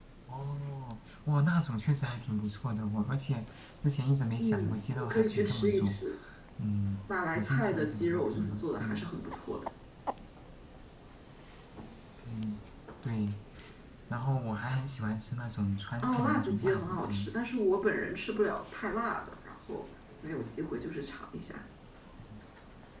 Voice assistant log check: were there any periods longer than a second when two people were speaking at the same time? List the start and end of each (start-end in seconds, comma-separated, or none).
4.4-6.0, 7.3-9.0, 16.0-17.3